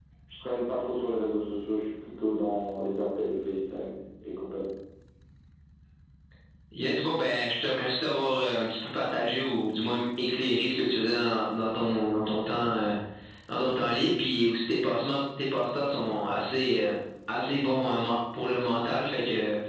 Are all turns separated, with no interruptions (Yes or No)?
Yes